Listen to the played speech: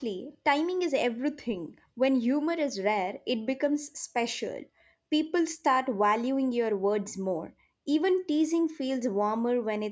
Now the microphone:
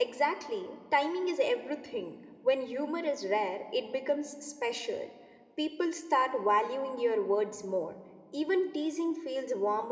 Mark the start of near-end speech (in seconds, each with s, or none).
none